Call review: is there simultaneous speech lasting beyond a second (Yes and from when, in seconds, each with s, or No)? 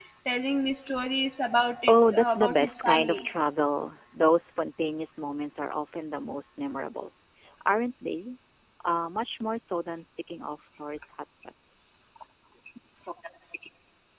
Yes, from 1.9 s